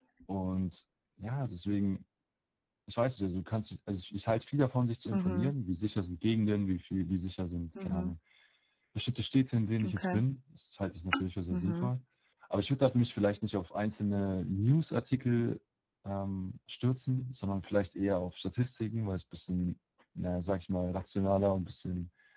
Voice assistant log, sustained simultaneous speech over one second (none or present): none